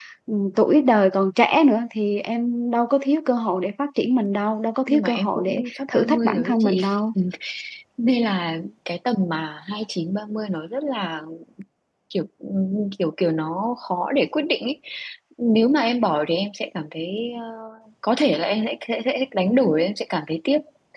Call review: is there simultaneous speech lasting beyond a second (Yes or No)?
Yes